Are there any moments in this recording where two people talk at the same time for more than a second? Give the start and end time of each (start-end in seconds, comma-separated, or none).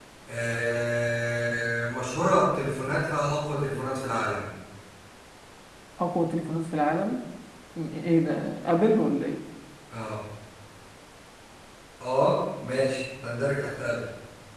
none